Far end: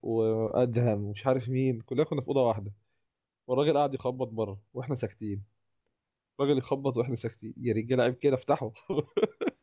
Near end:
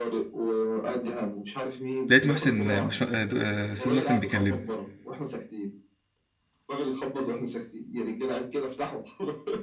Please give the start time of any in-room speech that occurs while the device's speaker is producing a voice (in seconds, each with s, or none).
2.1 s